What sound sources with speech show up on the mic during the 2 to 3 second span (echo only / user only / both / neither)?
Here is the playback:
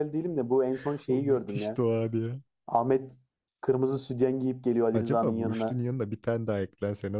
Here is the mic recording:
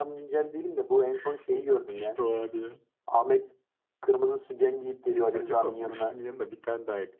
echo only